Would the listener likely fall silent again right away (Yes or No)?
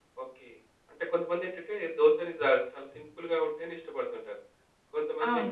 Yes